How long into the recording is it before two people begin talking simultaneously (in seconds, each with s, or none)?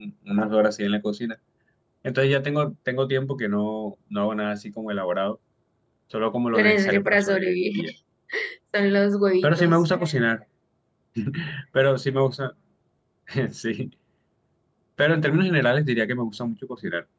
6.5 s